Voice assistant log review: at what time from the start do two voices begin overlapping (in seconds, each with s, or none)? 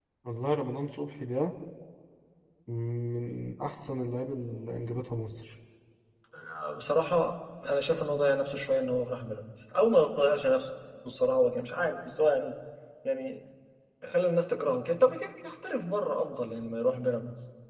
none